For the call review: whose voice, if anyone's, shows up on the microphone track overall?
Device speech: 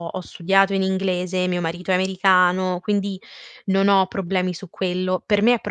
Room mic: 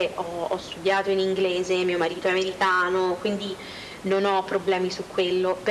echo only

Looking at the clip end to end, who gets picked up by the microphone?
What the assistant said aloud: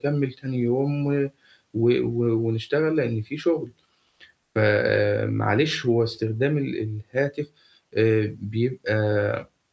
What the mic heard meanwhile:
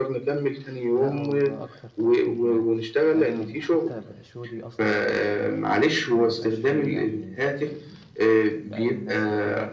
both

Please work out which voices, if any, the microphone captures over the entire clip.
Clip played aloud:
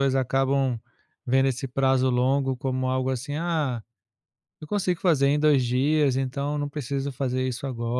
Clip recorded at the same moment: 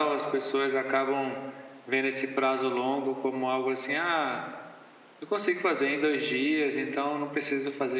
echo only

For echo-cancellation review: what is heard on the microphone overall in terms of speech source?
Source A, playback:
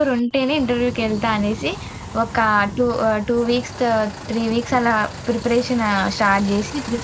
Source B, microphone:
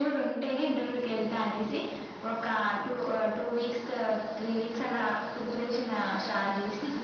echo only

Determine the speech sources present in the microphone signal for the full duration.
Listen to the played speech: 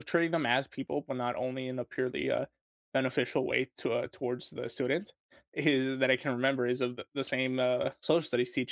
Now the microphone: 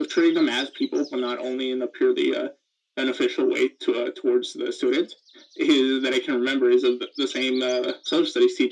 echo only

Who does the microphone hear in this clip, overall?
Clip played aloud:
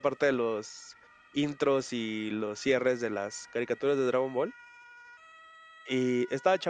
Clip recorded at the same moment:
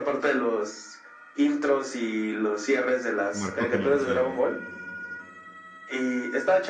both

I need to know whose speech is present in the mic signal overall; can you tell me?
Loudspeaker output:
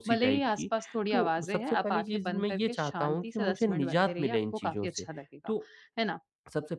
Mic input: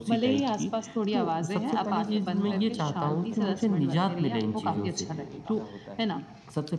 both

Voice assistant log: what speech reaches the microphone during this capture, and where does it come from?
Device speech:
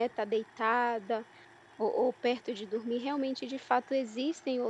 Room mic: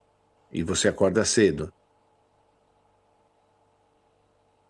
user only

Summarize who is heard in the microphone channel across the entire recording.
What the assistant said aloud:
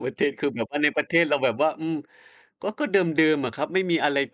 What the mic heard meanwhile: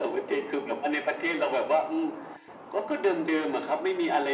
echo only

